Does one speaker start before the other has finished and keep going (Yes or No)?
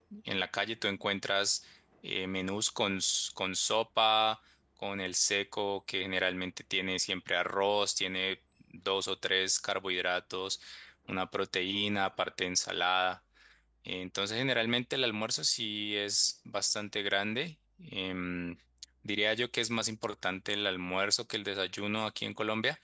No